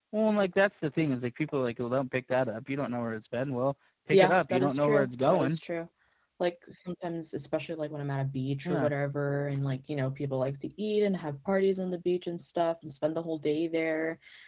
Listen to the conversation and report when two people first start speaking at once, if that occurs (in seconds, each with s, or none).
4.1 s